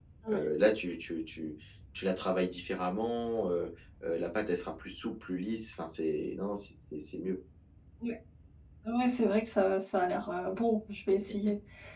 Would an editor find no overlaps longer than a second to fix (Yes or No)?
Yes